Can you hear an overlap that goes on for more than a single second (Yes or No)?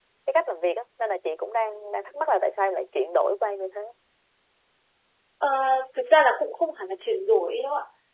No